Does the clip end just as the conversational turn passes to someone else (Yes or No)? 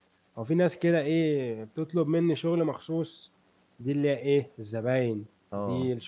No